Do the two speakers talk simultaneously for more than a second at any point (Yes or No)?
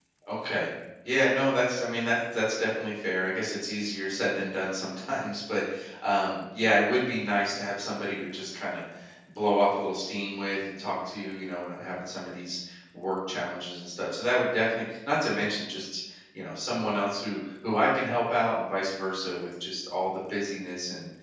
No